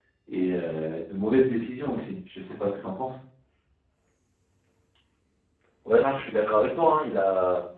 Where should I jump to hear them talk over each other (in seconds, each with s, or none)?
none